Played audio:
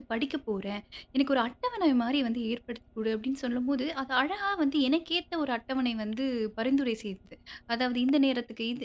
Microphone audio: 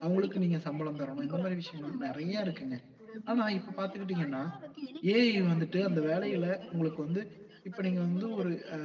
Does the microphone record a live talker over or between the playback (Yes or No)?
Yes